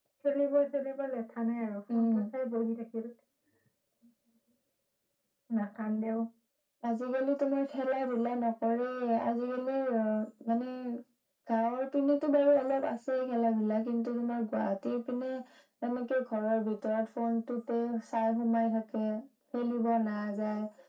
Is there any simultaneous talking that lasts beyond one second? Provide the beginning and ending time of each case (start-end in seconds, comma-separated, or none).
none